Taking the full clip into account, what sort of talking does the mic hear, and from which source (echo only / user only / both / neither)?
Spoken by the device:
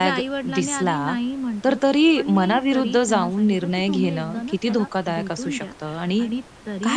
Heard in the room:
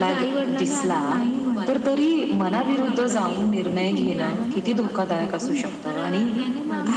both